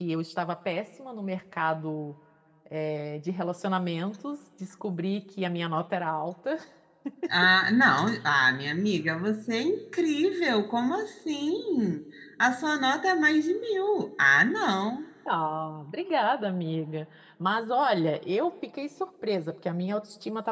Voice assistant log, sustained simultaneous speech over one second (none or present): none